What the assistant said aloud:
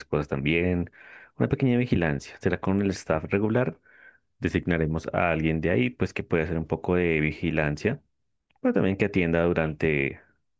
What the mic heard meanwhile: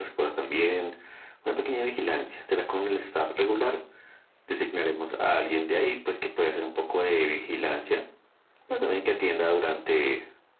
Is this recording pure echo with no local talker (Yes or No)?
Yes